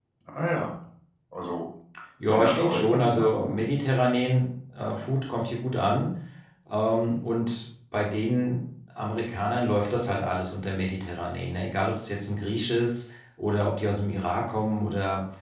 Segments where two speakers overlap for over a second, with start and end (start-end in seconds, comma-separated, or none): 2.3-3.6